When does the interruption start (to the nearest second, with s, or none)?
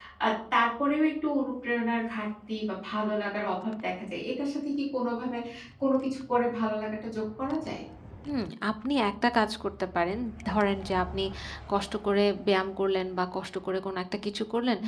none